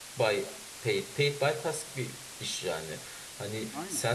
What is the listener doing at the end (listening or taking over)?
listening